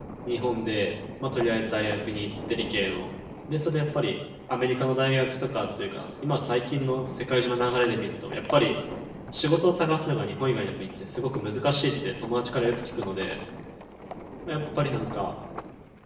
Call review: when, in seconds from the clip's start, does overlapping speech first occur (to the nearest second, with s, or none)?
none